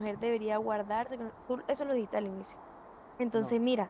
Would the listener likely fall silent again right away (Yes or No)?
Yes